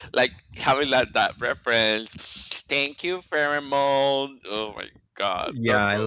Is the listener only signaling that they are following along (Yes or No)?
No